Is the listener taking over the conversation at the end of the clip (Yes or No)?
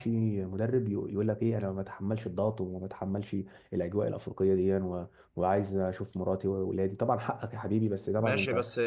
Yes